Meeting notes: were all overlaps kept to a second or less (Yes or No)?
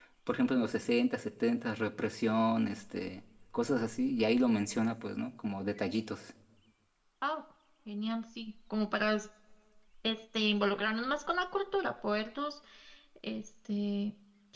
Yes